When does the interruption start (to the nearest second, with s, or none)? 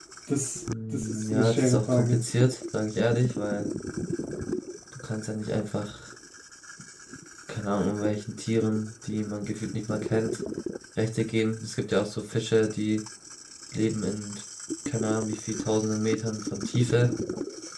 1 s